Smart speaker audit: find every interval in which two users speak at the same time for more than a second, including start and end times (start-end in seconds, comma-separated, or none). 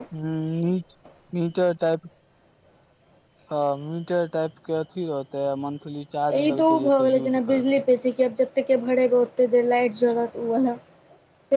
6.3-7.6